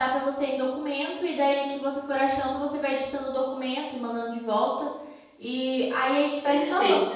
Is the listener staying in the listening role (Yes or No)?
No